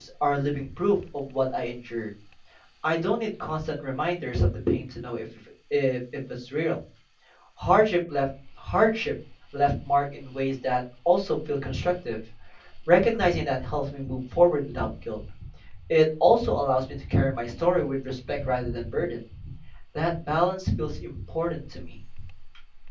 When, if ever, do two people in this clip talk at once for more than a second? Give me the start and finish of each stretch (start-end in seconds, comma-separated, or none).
none